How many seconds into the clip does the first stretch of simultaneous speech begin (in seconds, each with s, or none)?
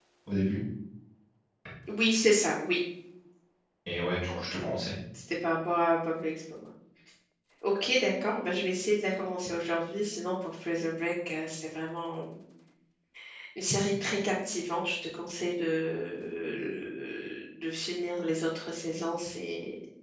none